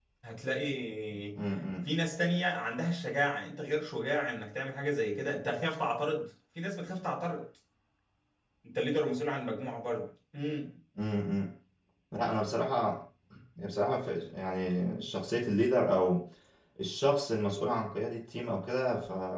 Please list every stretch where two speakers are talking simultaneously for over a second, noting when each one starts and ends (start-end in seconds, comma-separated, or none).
none